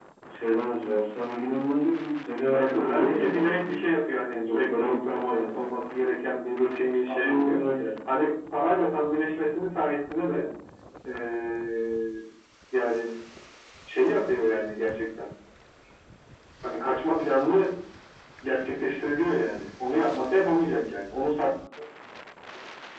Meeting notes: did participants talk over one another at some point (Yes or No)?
Yes